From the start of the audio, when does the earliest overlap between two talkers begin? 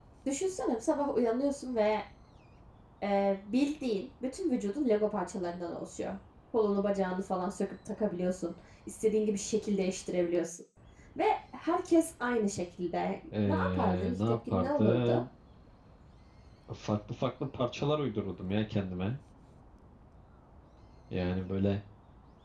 13.3 s

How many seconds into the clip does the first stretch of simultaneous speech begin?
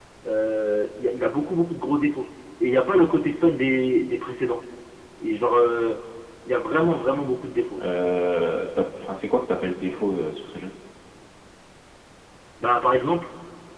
none

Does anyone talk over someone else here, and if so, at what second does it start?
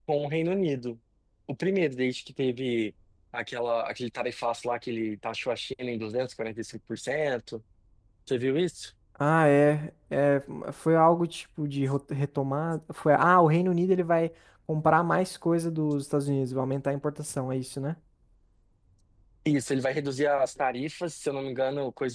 none

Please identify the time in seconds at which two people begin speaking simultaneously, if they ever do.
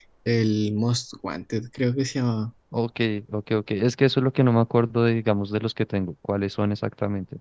none

